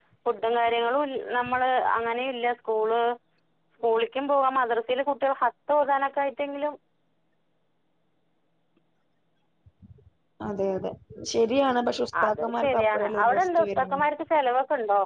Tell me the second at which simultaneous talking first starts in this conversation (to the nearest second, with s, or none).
12 s